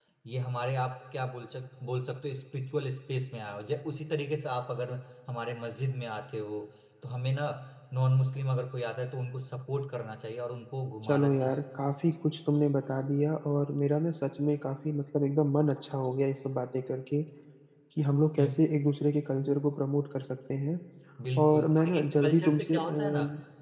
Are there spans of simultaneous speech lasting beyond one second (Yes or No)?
Yes